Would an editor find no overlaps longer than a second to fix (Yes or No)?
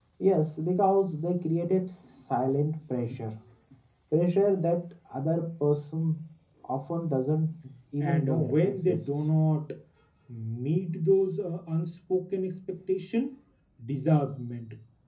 No